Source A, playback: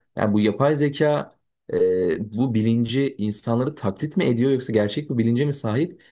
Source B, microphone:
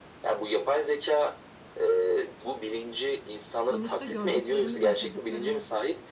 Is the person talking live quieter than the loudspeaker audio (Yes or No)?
Yes